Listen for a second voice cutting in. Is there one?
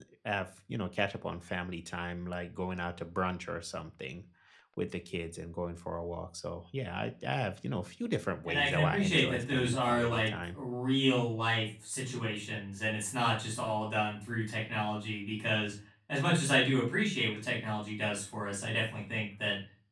Yes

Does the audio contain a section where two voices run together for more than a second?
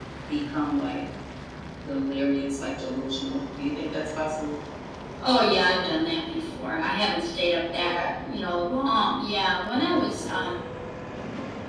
No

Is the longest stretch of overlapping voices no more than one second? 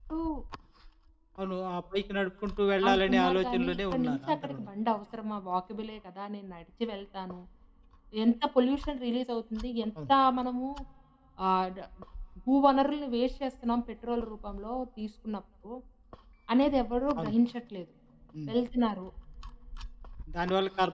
No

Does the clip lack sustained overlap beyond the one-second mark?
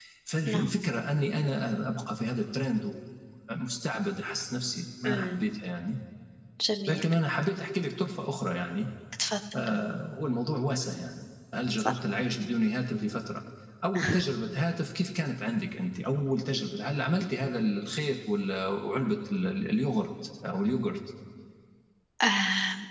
Yes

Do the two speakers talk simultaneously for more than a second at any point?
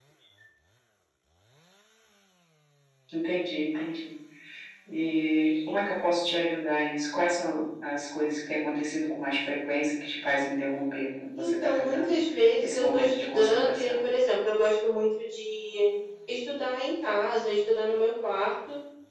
Yes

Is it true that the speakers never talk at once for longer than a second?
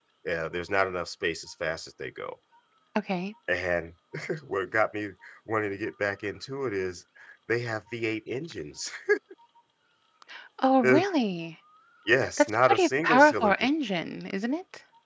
No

